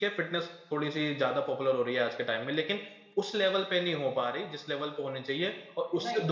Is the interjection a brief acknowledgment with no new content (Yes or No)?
No